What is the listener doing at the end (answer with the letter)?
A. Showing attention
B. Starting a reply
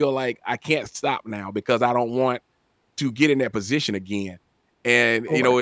A